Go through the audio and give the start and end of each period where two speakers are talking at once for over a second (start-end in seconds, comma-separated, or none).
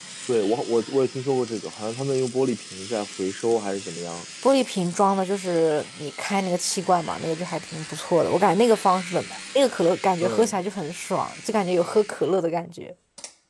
none